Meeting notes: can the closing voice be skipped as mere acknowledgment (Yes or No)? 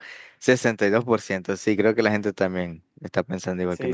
No